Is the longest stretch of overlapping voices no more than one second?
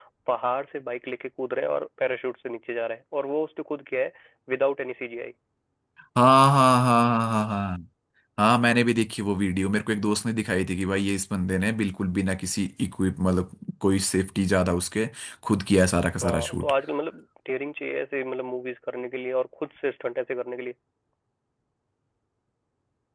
Yes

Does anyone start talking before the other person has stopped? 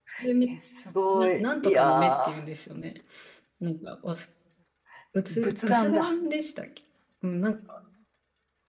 Yes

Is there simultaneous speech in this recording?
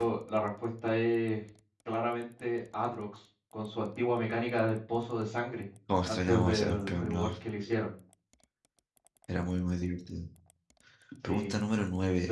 Yes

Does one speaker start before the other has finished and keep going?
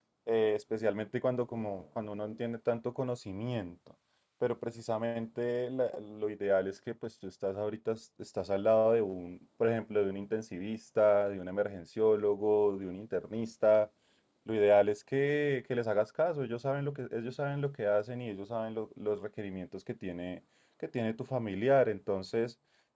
No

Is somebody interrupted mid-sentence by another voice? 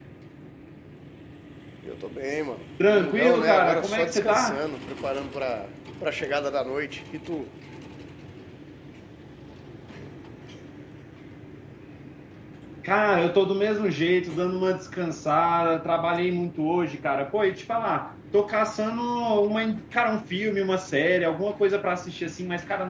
Yes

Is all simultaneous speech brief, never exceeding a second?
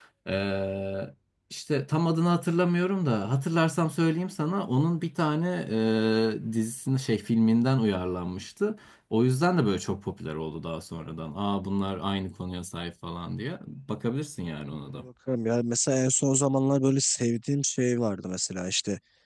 Yes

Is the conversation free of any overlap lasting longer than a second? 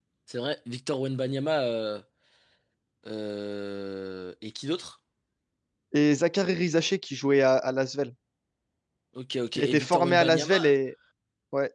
No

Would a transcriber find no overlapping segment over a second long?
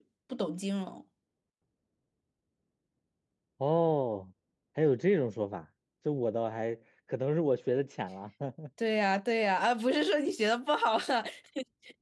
Yes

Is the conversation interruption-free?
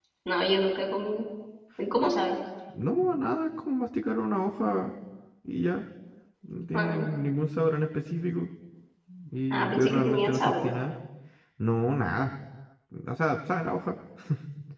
No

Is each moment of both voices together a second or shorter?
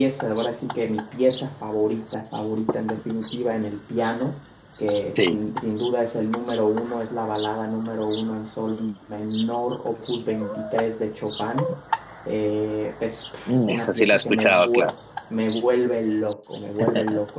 No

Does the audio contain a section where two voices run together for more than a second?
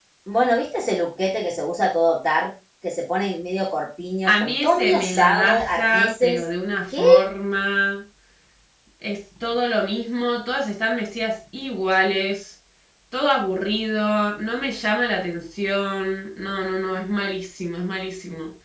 Yes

